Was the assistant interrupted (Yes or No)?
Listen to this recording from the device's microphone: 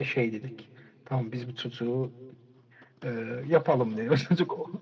No